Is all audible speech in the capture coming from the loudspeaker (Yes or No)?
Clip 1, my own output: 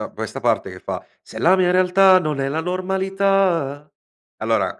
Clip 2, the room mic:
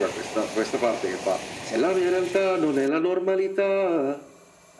Yes